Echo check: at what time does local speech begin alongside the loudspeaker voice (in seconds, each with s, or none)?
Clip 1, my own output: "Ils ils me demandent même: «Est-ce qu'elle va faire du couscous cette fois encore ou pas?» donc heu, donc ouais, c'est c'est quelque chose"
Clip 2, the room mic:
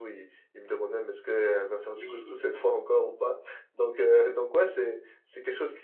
2.0 s